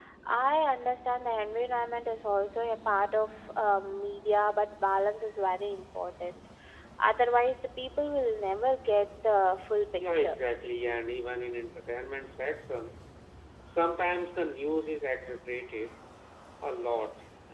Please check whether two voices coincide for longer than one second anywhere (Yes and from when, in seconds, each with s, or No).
No